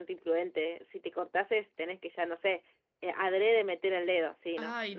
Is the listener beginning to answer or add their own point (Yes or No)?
Yes